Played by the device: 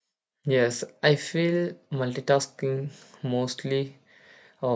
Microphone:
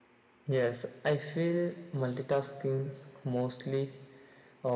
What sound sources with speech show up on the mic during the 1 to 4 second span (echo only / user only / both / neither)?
echo only